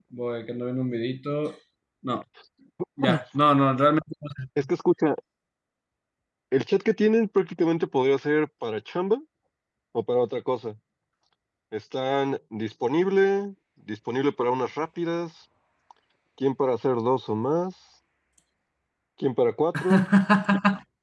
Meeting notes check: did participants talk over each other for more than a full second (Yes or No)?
No